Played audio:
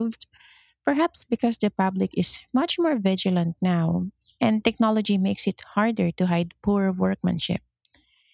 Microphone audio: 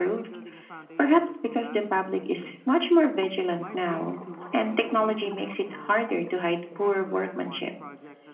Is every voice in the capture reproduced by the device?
No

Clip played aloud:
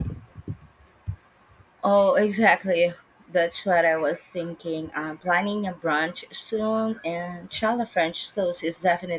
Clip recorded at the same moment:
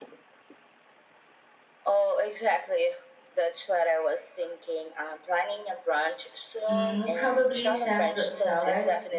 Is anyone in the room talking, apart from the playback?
Yes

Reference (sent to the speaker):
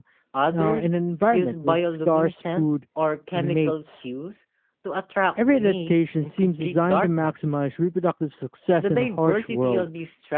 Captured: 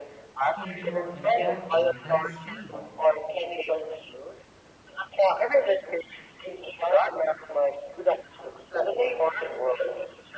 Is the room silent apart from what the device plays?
No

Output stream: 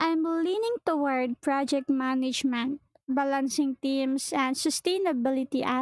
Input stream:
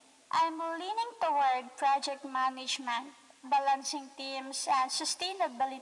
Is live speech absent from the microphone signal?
Yes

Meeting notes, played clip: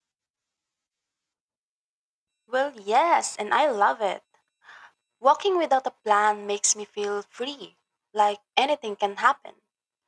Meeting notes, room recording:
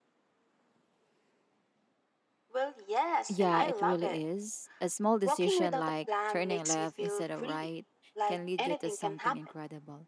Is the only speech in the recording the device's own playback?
No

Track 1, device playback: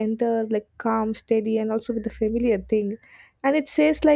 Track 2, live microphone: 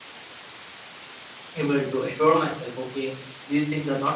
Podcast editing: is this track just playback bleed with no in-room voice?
No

